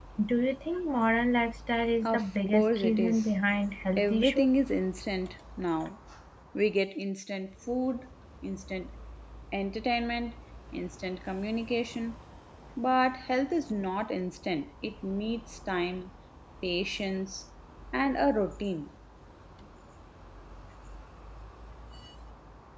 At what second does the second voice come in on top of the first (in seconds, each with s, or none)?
2.0 s